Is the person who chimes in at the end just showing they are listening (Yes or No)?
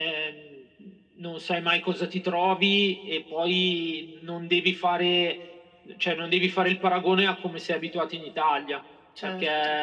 Yes